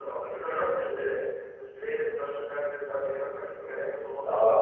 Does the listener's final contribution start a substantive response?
Yes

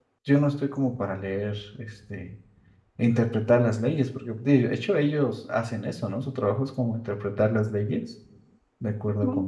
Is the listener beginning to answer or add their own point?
Yes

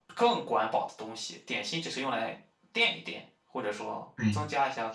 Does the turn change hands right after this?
Yes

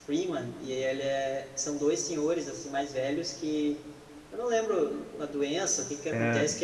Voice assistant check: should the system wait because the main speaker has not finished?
Yes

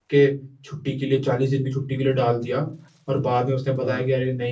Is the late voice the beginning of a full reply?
No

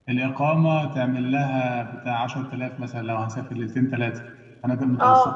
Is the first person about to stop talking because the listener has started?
Yes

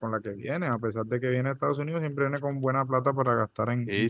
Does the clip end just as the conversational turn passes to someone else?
Yes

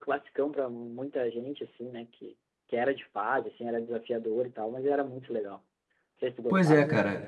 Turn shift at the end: Yes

